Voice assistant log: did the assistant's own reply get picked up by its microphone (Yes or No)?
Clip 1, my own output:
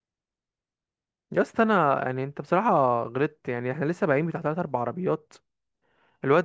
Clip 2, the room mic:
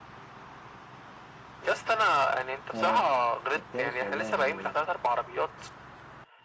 Yes